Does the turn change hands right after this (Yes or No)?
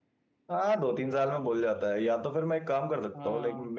No